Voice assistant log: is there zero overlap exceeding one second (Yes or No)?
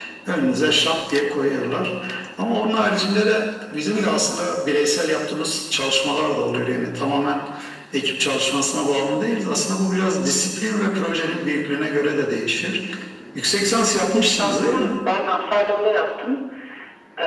No